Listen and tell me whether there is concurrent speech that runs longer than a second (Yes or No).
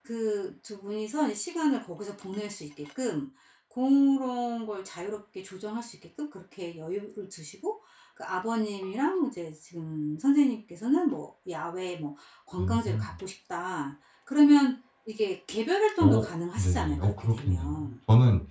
Yes